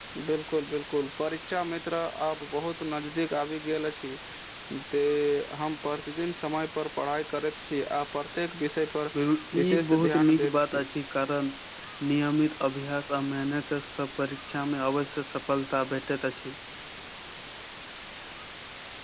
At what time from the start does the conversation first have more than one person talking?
9.6 s

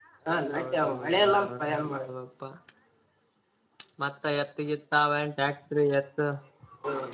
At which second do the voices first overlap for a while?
0.5 s

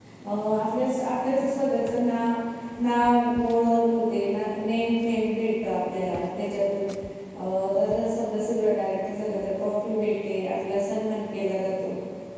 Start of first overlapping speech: none

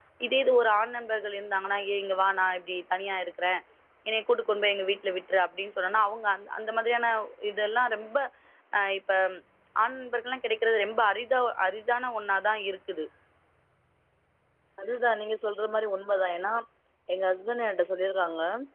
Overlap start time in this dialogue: none

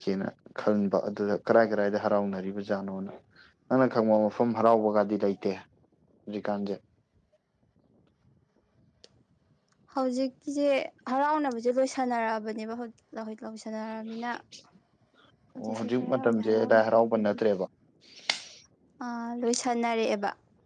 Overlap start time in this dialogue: 15.6 s

